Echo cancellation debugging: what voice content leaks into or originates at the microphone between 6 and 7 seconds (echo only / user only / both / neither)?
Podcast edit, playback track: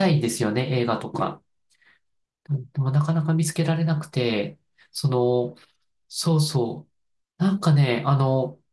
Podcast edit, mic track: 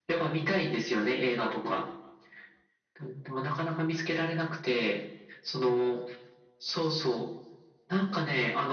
echo only